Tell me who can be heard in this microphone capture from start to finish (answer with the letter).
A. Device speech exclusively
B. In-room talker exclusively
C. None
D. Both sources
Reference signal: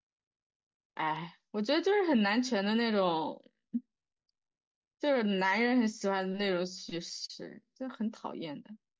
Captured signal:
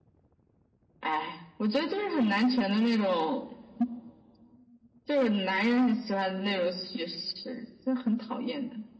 A